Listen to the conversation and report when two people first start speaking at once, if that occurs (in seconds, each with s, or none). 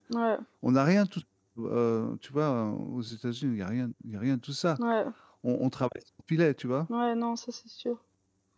none